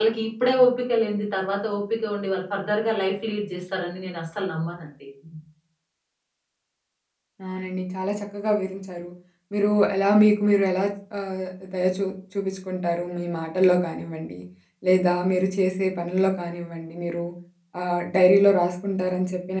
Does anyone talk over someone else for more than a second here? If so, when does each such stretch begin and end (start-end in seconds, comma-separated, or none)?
none